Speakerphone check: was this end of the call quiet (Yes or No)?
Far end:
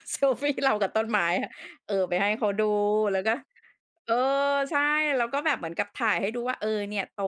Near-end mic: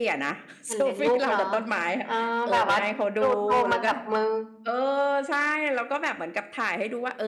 No